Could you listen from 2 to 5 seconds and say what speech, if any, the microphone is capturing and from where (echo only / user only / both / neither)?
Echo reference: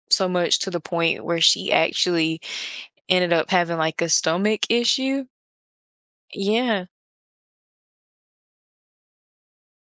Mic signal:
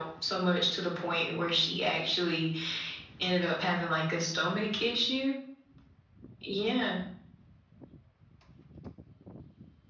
echo only